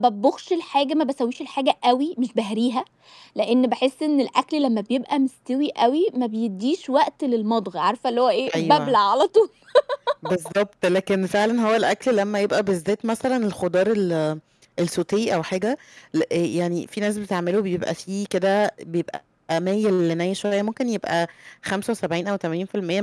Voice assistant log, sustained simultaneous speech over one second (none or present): none